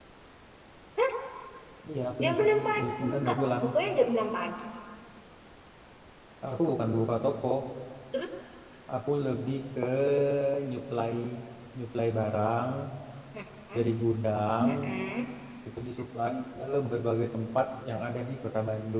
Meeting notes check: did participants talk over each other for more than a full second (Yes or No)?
Yes